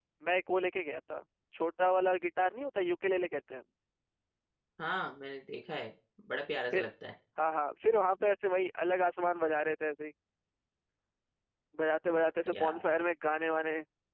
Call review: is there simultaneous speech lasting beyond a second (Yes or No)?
No